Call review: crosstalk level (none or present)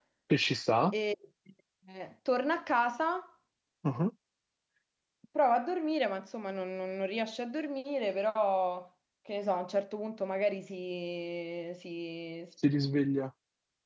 none